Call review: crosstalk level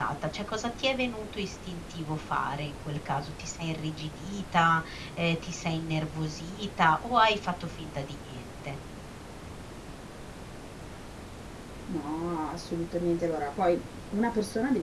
none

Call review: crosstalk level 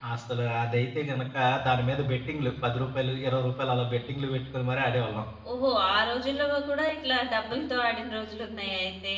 none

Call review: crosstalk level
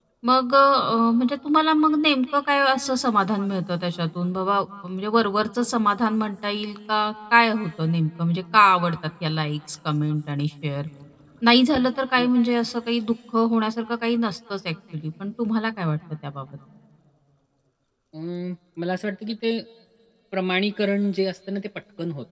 none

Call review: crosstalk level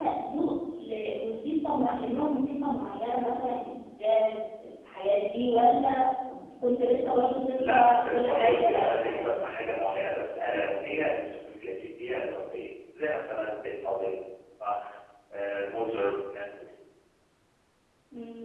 present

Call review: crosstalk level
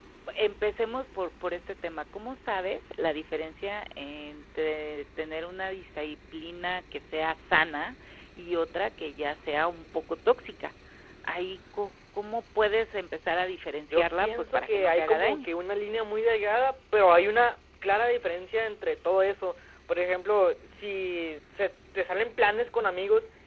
present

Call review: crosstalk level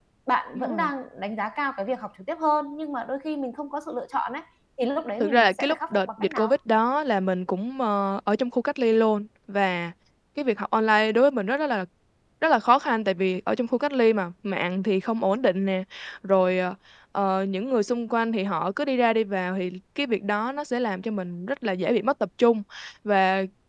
present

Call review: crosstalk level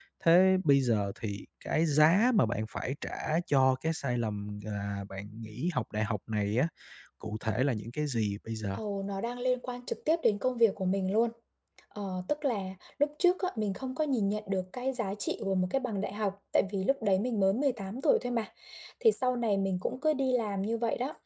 none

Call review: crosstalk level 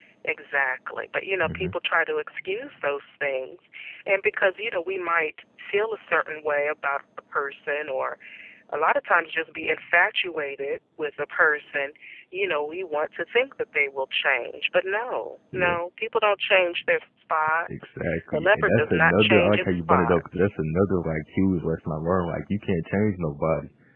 present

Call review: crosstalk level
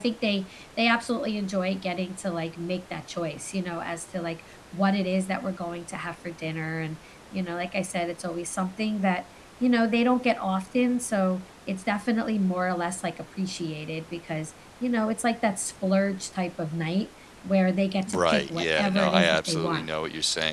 present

